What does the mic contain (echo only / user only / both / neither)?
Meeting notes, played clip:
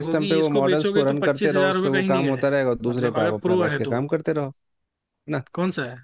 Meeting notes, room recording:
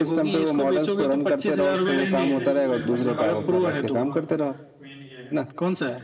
both